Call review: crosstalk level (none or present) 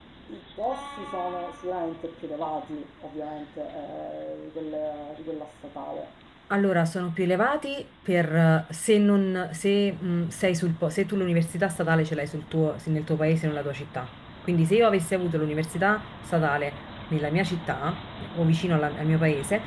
none